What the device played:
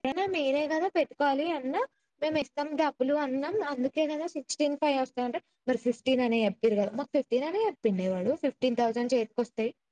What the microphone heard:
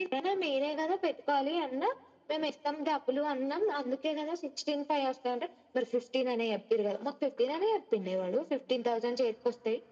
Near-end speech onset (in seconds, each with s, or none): none